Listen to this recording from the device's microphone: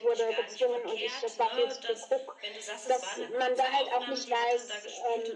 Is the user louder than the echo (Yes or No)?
No